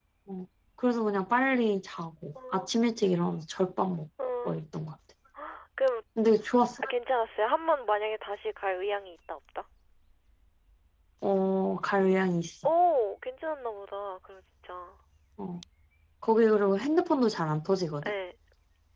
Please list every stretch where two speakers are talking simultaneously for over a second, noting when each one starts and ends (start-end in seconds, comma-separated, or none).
none